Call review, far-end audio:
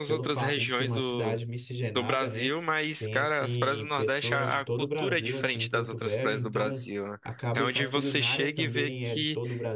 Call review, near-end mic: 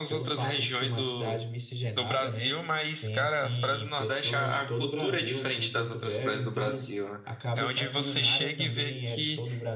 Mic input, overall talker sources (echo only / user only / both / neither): echo only